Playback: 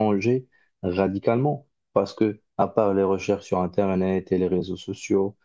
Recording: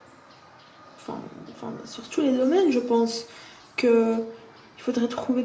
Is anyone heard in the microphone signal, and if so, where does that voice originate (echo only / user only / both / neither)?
user only